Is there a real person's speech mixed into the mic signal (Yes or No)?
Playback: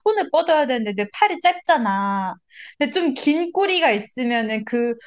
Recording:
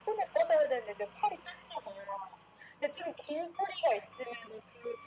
No